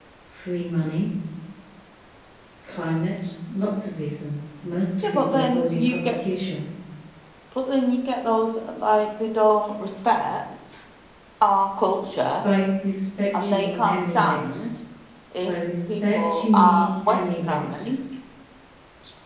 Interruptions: present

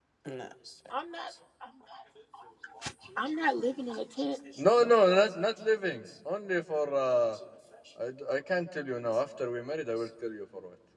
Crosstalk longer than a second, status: none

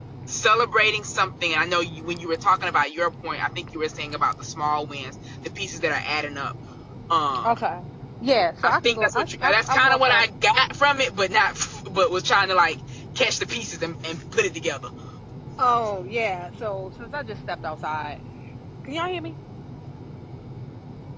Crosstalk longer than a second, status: present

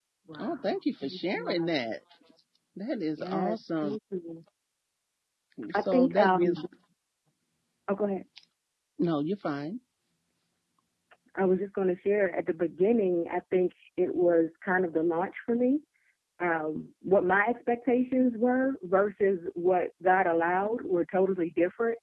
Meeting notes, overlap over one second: present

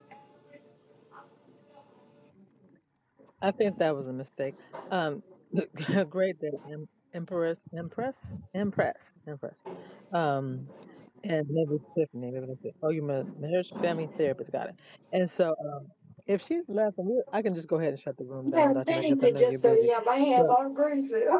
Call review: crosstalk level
present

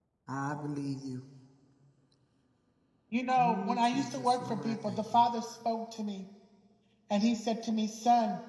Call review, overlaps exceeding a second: present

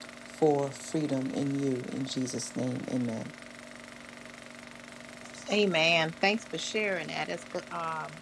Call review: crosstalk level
none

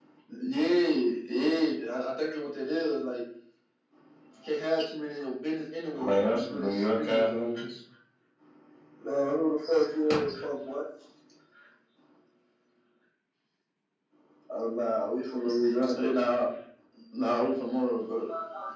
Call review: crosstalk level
present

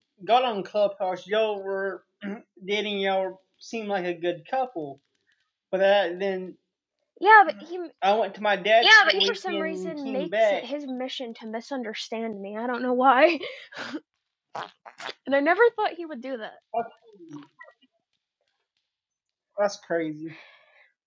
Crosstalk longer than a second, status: present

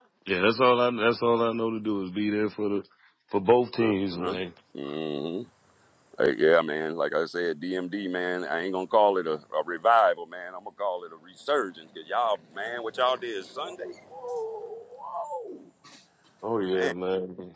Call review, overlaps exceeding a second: none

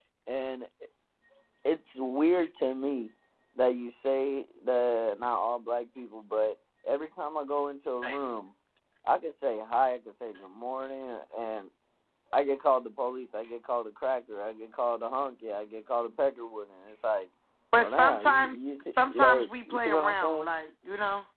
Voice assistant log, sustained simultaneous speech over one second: present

